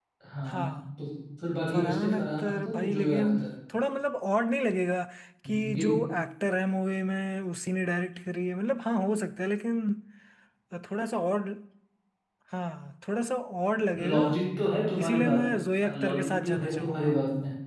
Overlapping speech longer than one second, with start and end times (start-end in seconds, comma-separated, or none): 1.7-3.3, 15.8-17.1